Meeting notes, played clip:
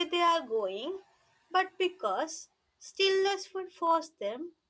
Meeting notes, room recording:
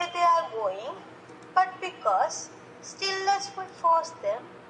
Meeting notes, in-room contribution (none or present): none